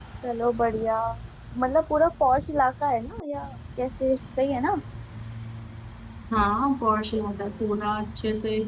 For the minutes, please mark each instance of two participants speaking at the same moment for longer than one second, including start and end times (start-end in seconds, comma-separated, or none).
none